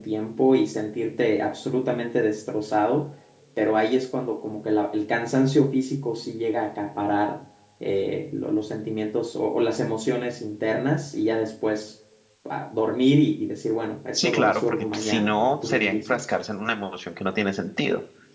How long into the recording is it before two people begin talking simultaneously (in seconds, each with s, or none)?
14.1 s